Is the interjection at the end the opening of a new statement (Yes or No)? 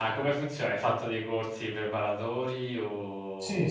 Yes